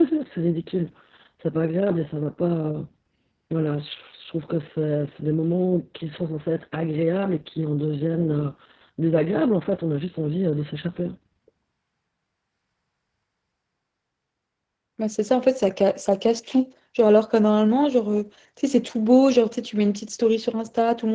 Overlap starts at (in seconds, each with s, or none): none